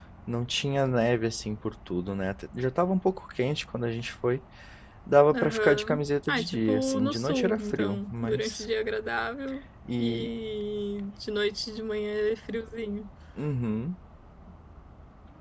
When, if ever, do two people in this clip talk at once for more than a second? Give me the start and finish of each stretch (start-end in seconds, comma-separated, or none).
5.3-8.7